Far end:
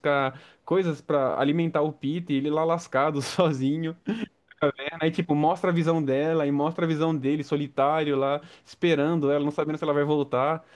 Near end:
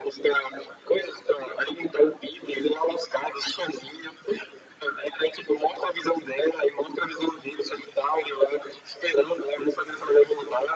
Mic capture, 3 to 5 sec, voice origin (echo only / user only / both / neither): echo only